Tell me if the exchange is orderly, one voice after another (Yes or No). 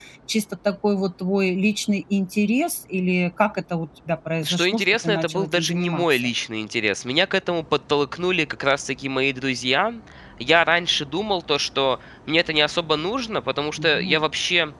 No